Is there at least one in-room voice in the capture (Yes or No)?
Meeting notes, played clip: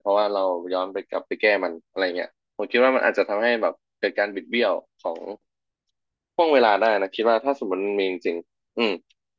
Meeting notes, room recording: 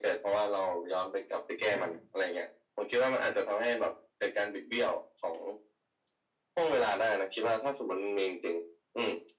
Yes